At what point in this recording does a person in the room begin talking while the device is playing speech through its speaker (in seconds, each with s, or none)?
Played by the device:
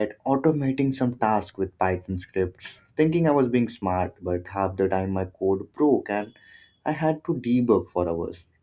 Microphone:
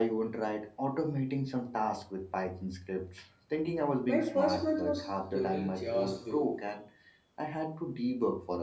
4.0 s